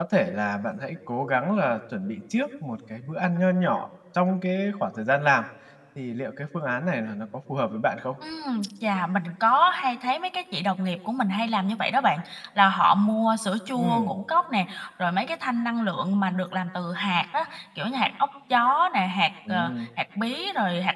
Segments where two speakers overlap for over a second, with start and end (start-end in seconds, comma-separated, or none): none